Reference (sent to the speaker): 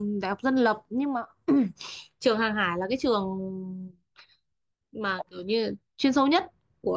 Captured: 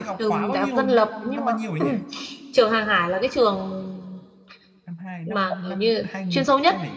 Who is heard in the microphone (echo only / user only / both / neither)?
both